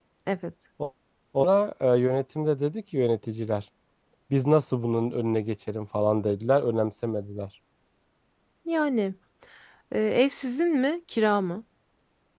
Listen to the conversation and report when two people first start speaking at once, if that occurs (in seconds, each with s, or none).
none